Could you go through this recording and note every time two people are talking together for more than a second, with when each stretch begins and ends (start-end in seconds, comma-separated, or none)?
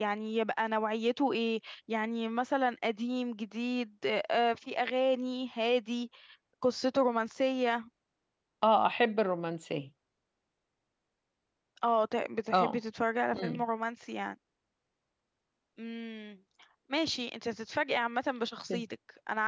none